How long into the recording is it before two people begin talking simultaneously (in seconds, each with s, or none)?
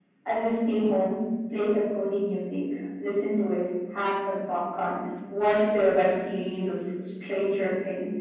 none